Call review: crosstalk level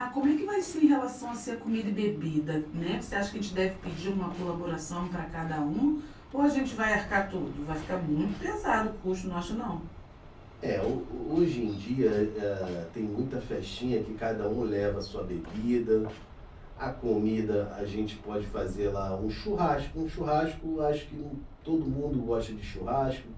none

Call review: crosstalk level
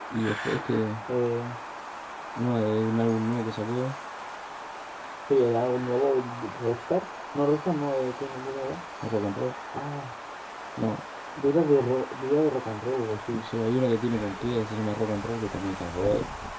none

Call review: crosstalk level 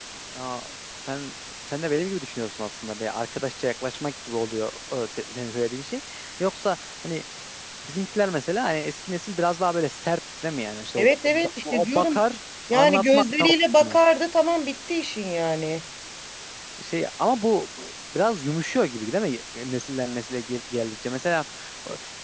present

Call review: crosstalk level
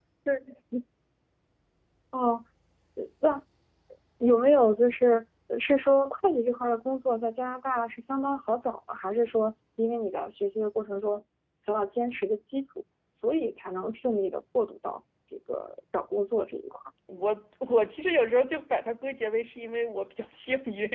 none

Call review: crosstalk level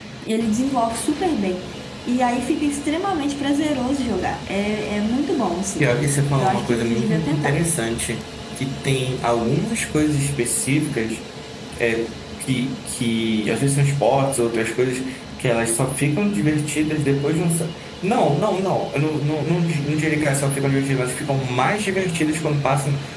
present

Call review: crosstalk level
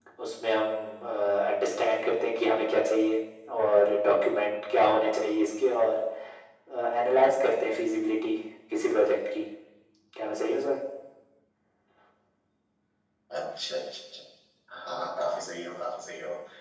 none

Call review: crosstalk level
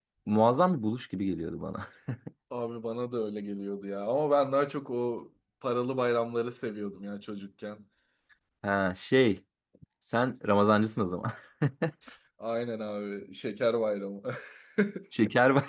none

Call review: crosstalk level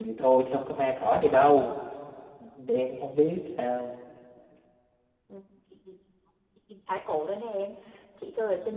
none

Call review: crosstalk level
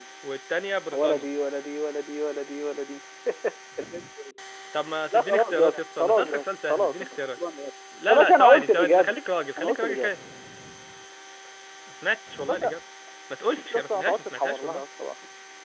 present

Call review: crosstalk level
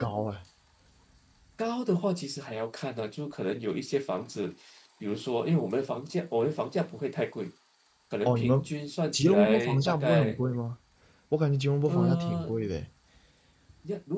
present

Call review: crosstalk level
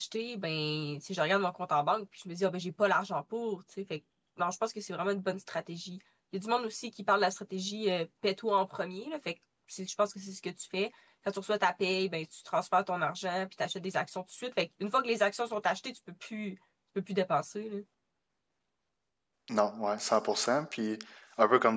none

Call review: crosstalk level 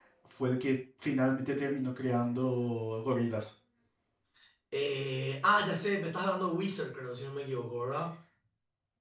none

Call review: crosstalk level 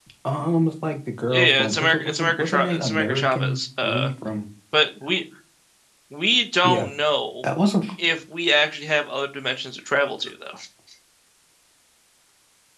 present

